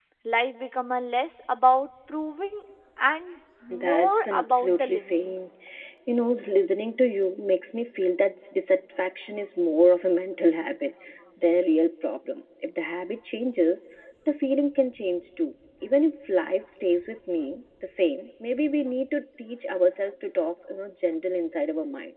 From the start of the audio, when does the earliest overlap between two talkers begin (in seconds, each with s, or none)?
3.7 s